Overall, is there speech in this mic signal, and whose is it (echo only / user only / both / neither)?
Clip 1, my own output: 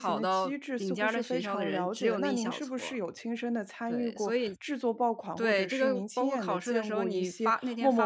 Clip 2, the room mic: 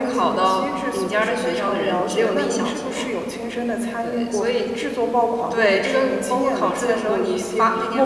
echo only